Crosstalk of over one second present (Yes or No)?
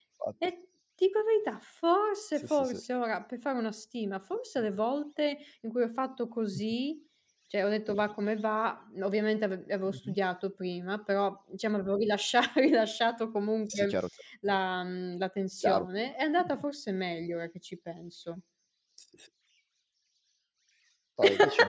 No